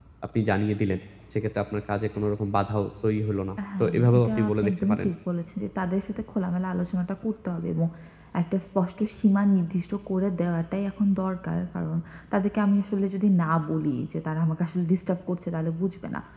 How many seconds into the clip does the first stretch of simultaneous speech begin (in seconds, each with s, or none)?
3.6 s